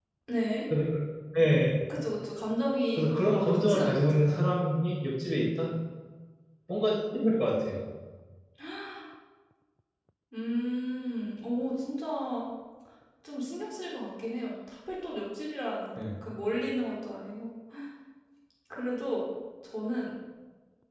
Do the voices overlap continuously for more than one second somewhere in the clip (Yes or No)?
Yes